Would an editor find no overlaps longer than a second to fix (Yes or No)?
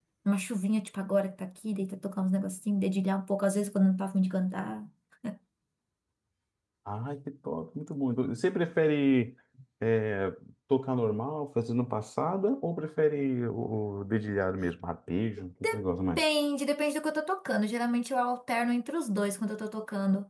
Yes